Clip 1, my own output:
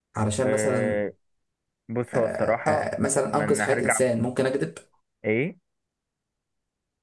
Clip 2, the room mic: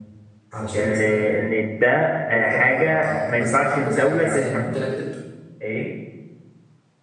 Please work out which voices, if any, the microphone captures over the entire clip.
both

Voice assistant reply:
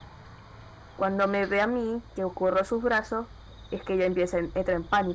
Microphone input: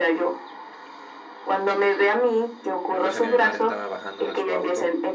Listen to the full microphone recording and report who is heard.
both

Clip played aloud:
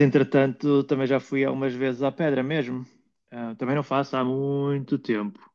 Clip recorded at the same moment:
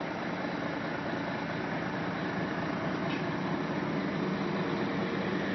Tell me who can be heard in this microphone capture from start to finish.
neither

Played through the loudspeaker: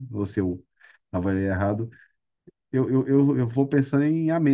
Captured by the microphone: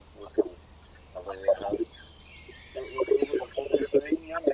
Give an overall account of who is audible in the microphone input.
echo only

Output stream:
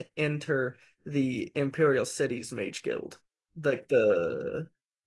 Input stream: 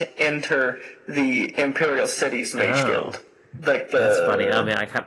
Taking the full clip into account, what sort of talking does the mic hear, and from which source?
both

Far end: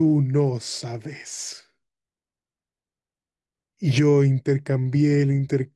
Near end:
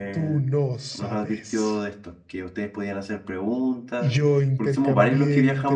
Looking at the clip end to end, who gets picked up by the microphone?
both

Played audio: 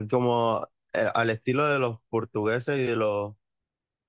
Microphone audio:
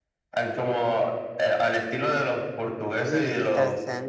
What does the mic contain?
both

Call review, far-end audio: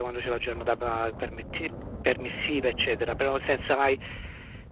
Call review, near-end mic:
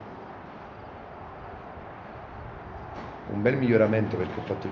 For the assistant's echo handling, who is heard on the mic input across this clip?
user only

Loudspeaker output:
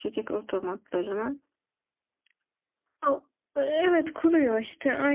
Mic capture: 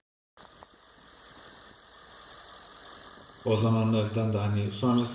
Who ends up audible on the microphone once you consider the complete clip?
user only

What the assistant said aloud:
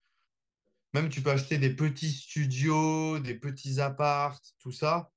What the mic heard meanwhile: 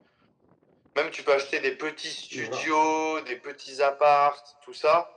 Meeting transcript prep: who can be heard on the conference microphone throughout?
both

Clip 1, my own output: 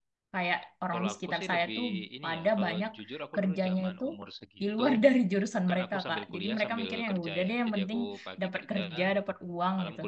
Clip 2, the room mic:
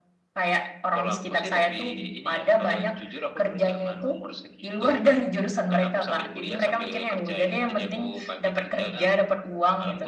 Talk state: echo only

